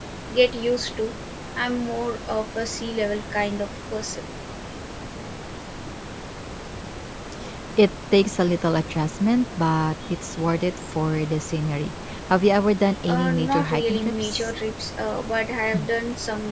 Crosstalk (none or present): present